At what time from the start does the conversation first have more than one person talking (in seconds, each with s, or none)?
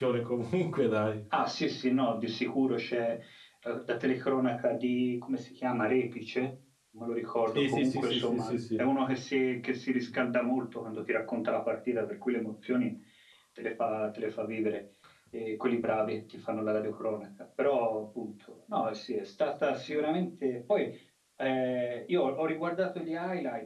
7.5 s